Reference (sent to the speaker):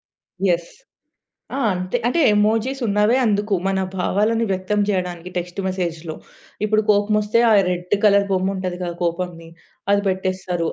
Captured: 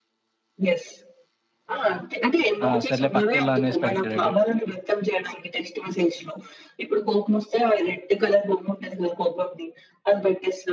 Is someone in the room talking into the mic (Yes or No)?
Yes